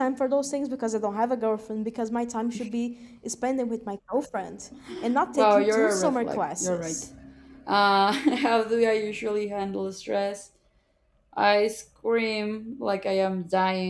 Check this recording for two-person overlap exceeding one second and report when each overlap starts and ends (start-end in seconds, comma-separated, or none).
5.3-7.0